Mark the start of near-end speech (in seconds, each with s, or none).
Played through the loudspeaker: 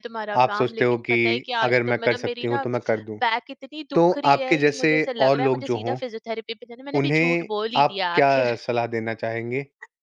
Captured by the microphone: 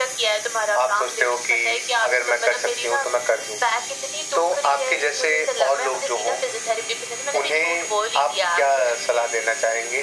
none